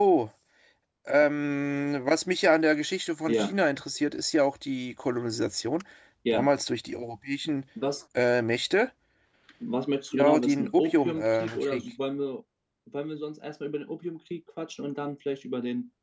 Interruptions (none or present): present